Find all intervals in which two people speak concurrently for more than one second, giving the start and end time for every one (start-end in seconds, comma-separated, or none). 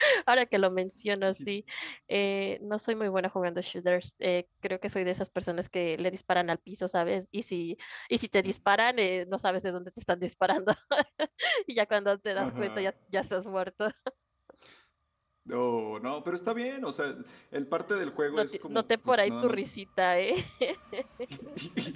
18.3-19.6